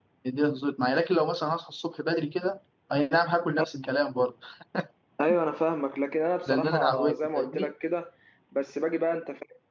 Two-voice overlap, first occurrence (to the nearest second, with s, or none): 6 s